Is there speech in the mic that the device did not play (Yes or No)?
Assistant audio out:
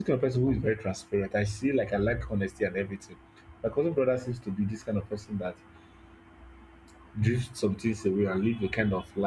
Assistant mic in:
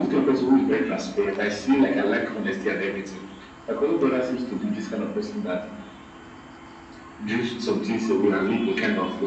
No